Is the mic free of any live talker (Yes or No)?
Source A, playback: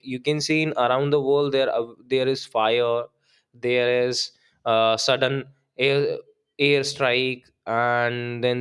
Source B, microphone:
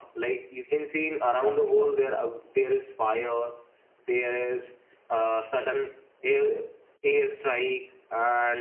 No